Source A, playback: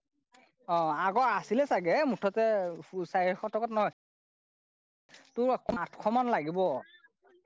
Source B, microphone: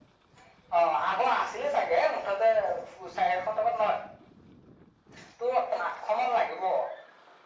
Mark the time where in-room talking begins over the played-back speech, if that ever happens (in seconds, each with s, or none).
none